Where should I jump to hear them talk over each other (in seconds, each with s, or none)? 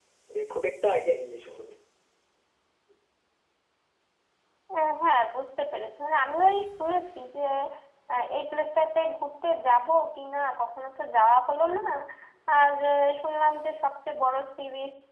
none